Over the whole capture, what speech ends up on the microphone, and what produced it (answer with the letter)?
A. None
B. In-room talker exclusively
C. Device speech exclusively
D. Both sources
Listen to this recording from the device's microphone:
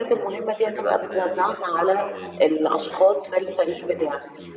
D